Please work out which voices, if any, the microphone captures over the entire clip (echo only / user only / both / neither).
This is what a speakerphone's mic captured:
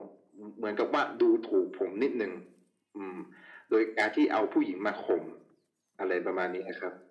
echo only